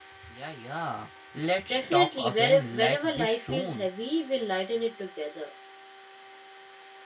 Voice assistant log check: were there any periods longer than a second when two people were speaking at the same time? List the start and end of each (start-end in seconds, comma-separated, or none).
1.7-3.9